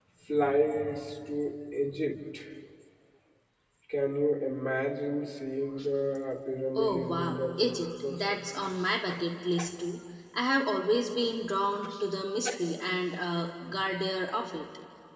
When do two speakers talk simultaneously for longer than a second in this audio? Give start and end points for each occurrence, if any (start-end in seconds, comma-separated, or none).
6.8-8.2